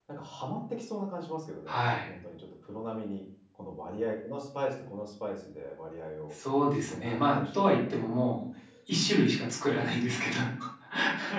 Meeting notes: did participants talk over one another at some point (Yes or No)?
Yes